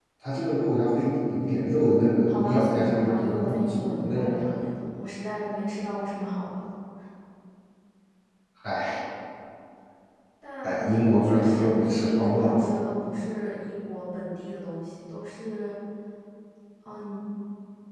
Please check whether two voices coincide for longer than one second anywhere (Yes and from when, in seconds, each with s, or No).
Yes, from 2.3 s